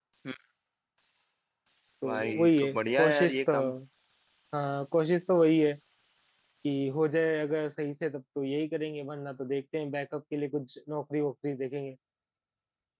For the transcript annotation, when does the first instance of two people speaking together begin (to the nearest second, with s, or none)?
2 s